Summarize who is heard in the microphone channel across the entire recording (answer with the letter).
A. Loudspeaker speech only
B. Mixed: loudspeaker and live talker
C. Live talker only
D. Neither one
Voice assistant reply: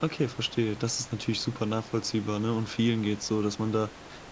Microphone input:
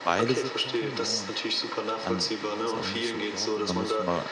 B